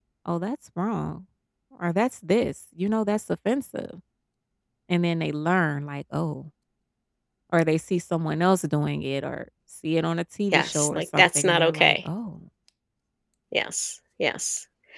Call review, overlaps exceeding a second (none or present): present